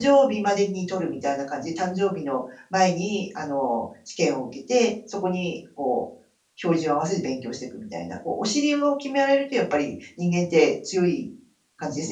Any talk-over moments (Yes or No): No